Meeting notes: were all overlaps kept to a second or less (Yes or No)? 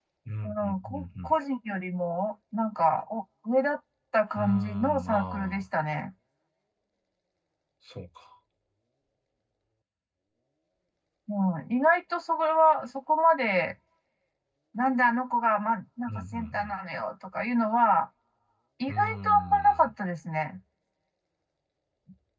No